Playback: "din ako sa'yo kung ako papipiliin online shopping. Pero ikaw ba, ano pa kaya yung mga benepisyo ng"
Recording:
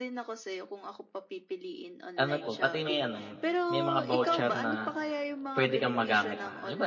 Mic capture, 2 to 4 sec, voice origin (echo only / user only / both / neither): both